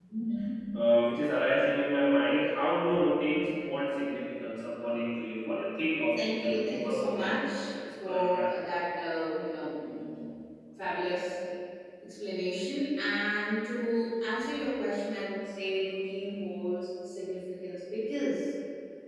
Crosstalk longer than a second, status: present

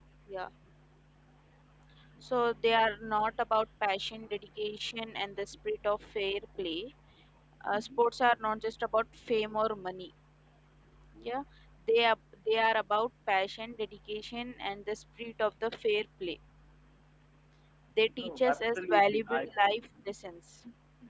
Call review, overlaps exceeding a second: present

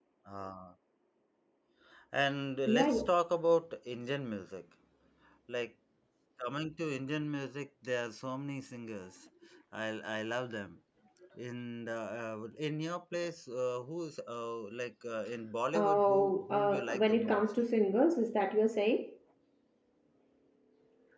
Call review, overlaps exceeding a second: present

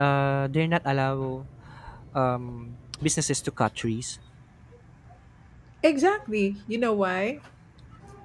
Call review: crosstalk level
none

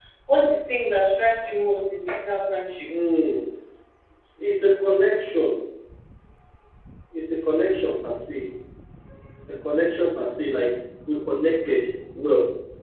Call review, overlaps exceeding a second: none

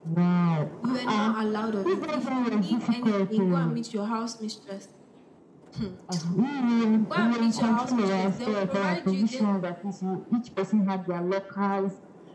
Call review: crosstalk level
present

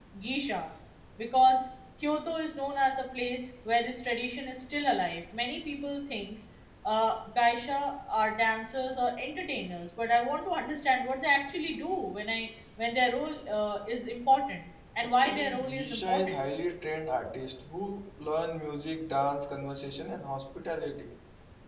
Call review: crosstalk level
present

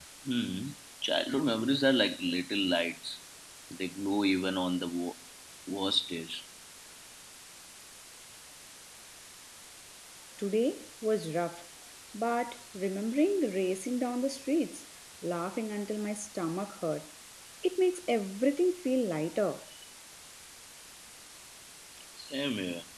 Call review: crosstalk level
none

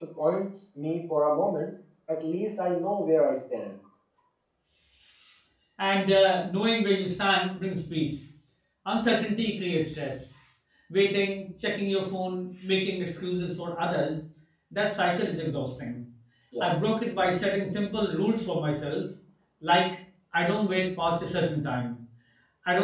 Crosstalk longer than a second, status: none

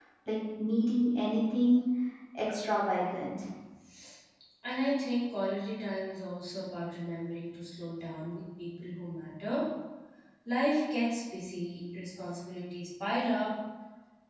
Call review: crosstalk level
none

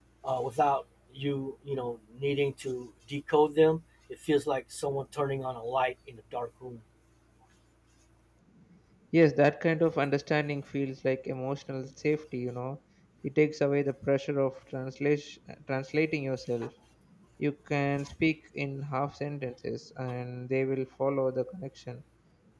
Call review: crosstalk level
none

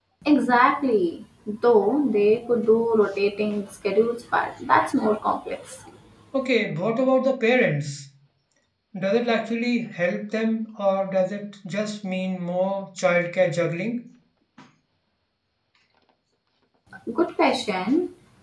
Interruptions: none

